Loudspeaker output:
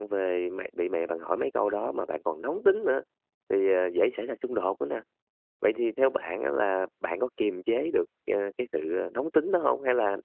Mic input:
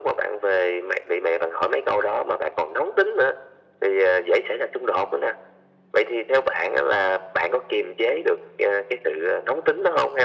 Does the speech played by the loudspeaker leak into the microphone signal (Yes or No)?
Yes